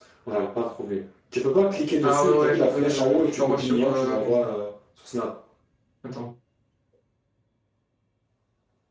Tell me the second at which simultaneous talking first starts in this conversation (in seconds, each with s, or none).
2.0 s